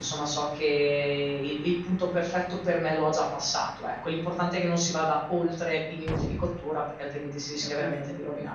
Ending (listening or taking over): taking over